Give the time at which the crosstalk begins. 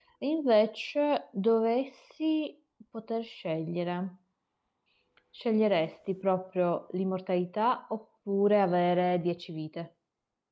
none

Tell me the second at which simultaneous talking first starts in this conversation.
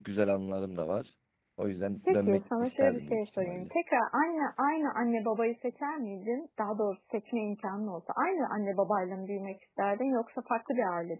2.0 s

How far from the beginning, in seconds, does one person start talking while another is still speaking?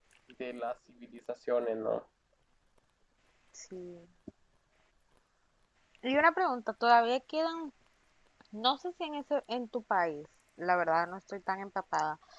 none

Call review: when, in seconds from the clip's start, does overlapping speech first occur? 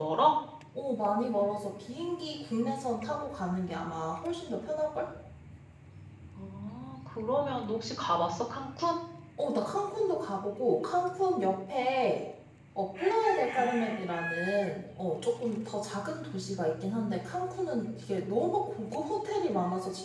none

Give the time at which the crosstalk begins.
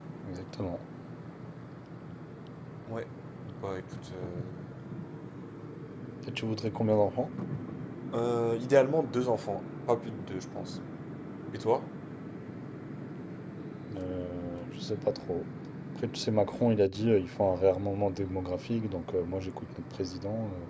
none

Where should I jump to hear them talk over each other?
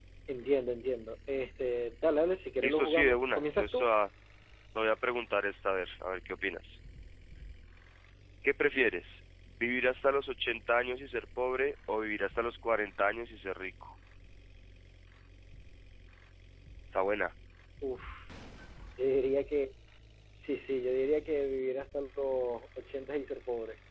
2.6 s

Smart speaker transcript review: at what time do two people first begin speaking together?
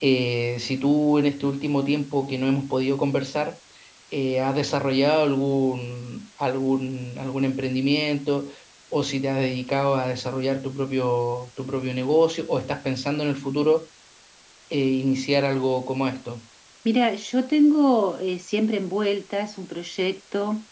none

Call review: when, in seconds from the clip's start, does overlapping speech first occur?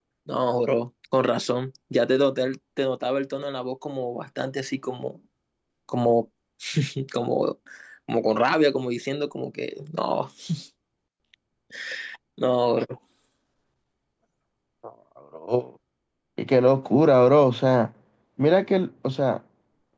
none

